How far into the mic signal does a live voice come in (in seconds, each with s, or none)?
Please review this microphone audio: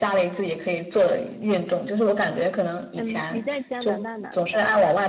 2.9 s